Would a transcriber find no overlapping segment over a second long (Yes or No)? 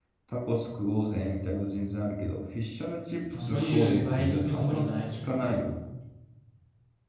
No